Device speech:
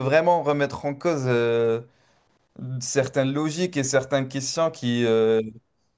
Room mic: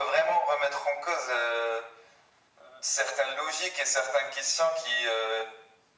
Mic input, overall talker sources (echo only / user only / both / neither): echo only